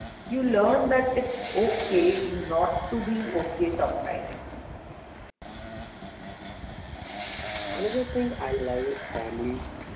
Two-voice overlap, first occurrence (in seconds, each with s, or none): none